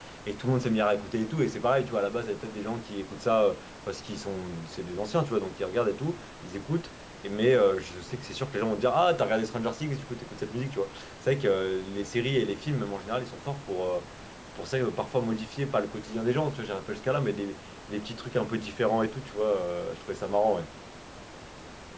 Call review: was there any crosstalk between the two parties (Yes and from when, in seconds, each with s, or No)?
No